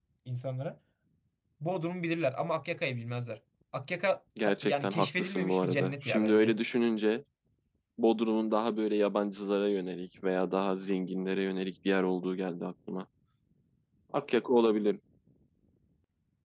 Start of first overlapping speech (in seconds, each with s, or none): 4.4 s